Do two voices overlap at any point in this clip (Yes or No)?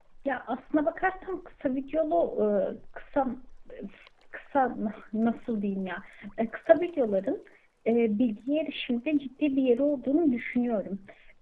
No